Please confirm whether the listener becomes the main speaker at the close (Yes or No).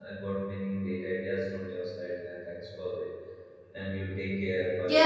Yes